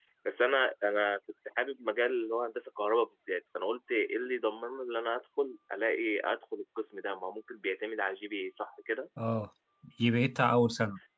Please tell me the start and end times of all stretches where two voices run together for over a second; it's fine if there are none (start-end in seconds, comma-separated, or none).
none